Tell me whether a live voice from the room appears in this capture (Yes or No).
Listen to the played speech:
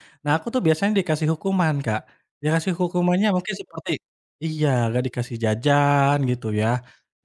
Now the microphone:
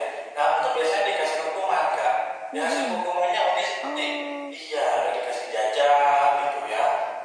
Yes